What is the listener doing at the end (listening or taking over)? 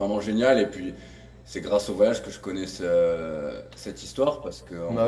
listening